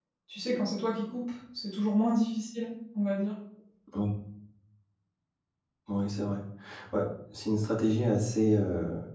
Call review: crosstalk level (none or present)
none